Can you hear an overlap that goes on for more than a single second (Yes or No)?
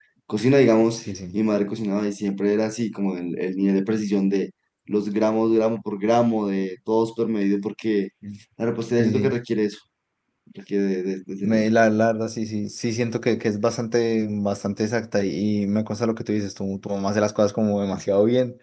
No